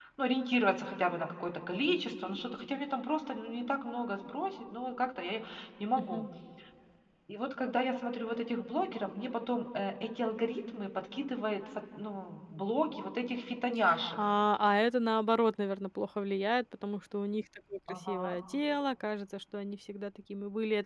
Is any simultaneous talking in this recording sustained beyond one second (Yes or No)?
No